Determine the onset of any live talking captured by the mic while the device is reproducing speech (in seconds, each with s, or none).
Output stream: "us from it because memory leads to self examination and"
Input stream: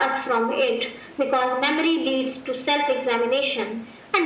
none